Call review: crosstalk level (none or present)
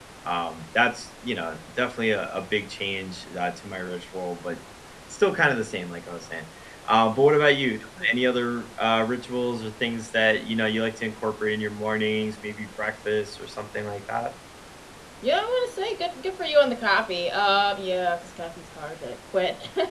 none